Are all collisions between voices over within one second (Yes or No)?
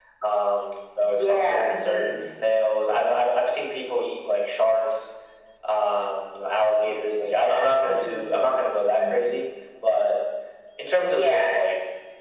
No